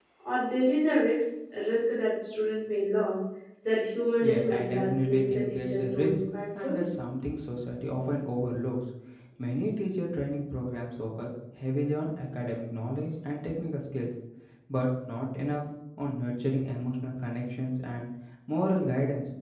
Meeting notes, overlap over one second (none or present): present